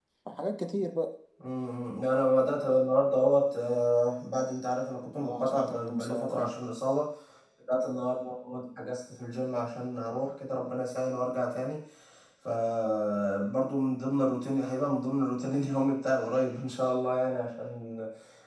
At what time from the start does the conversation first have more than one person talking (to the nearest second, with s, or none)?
5 s